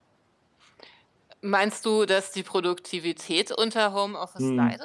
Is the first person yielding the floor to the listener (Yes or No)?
Yes